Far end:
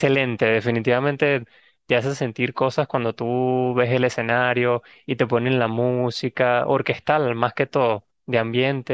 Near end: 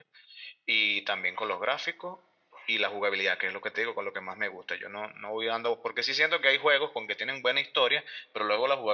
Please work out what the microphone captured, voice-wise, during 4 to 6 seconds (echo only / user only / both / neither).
user only